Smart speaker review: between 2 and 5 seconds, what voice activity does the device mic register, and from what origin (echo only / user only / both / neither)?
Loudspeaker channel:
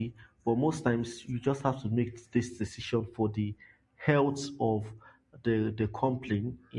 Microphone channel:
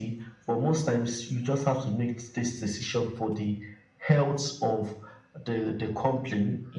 echo only